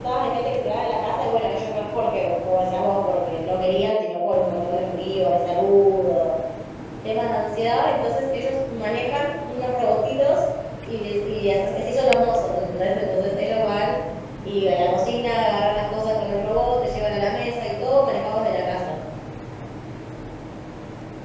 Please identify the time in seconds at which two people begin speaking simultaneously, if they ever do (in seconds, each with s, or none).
none